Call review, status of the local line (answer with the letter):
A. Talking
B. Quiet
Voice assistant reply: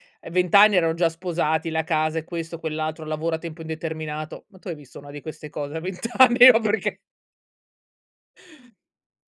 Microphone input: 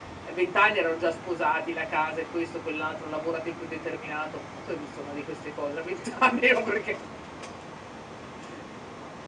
B